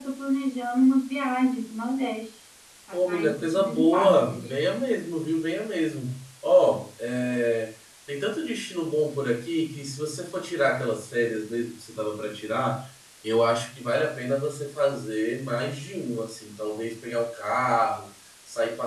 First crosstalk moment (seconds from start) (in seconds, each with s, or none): 2.9 s